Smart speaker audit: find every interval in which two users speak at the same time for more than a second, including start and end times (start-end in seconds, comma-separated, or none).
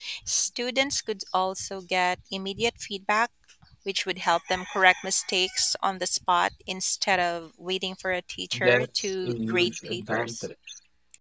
8.6-10.5